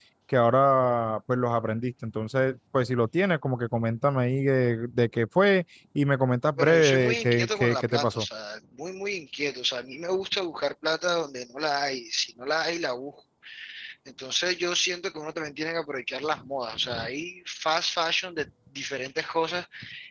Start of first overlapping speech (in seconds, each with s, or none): 6.6 s